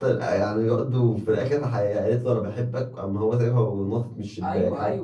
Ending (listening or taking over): taking over